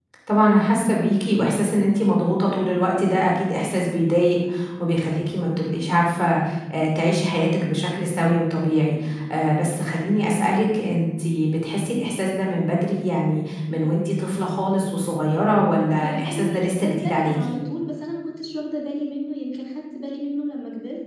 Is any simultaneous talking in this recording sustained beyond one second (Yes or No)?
Yes